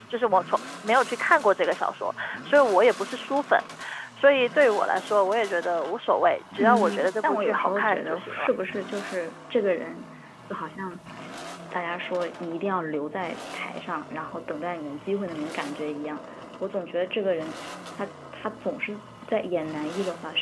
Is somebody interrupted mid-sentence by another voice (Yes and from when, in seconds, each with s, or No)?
Yes, from 6.6 s